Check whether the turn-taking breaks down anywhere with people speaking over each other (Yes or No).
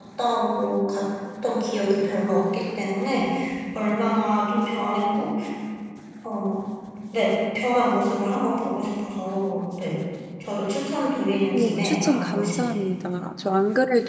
Yes